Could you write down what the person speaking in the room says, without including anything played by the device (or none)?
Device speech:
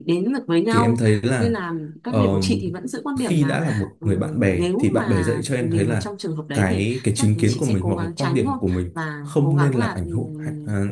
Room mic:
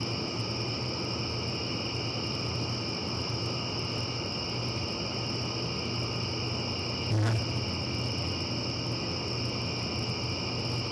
dạ